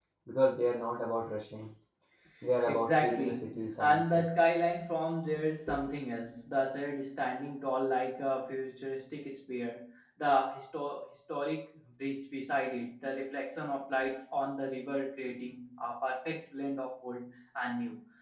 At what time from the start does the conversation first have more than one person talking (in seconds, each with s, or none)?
2.6 s